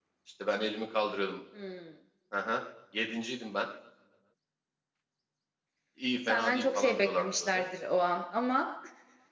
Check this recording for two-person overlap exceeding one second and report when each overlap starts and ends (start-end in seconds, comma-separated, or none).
6.3-7.6